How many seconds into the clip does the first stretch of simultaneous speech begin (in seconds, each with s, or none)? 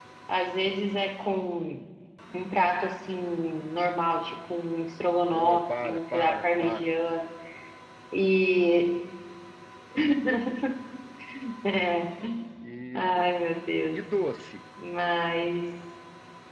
5.3 s